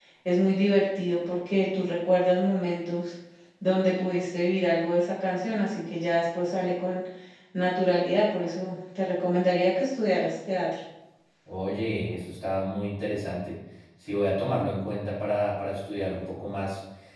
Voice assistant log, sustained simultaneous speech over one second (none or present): none